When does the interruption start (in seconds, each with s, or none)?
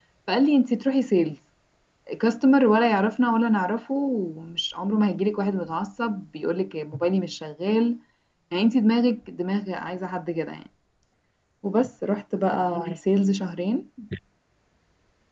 none